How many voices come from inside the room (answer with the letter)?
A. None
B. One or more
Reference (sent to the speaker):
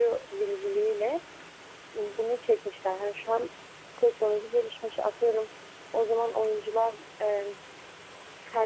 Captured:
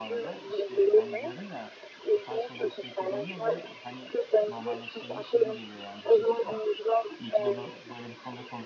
B